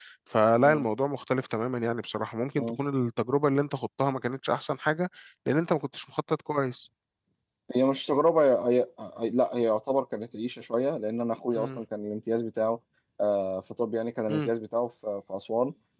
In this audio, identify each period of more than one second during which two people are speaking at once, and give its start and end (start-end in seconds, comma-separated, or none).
none